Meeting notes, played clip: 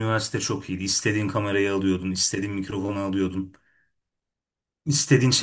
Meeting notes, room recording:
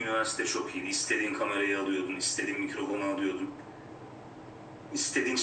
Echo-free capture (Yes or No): No